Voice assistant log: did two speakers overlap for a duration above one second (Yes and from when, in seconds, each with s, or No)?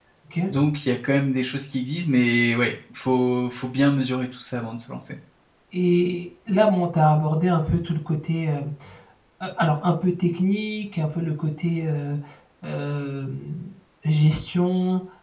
No